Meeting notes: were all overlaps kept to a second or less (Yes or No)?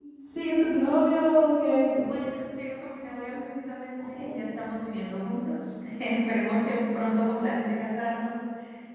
Yes